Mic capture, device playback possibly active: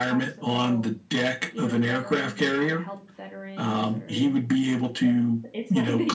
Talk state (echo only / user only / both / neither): both